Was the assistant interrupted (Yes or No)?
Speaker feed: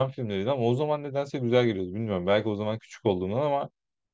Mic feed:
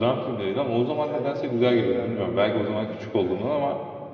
Yes